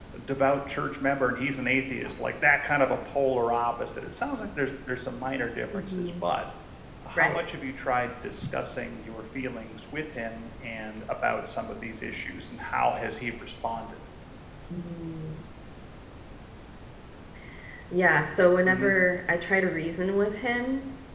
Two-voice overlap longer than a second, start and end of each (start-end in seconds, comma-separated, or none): none